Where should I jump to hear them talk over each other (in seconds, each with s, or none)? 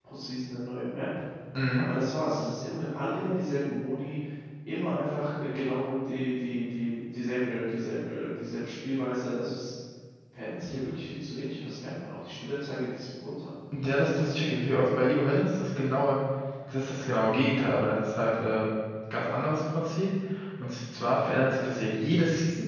none